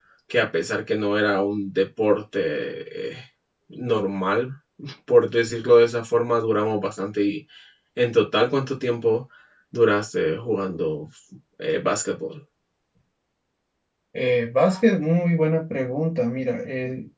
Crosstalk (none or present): none